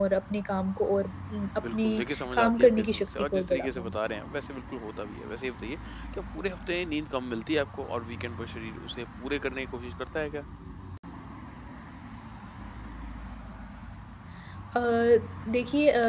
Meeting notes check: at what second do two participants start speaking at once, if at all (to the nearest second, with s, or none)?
2 s